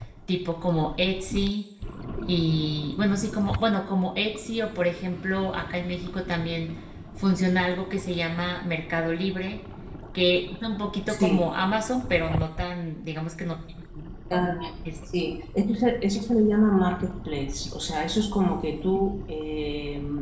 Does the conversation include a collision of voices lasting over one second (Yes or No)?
No